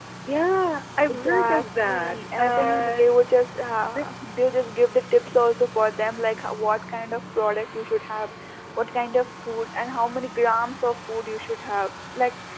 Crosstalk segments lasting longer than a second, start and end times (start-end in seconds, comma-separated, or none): 1.1-3.0